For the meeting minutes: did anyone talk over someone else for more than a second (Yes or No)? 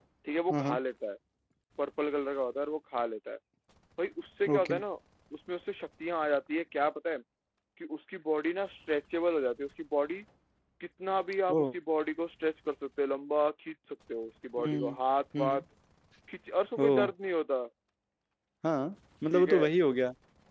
No